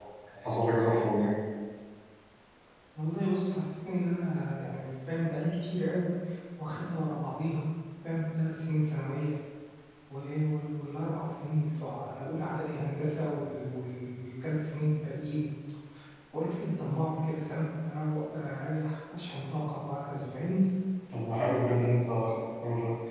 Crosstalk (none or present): none